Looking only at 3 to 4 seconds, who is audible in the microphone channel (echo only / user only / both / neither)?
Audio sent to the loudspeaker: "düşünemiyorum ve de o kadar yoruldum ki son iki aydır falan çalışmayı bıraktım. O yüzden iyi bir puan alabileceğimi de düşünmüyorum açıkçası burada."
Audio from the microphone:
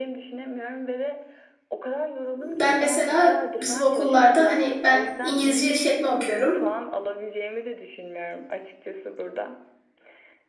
both